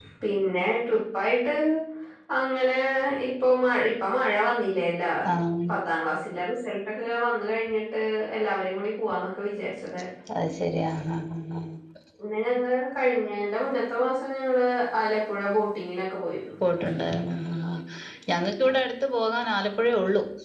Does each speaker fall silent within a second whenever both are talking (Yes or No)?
Yes